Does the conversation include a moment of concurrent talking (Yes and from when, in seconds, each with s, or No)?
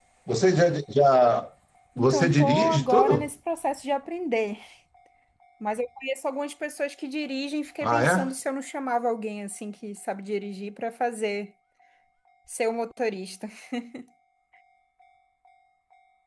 Yes, from 2.0 s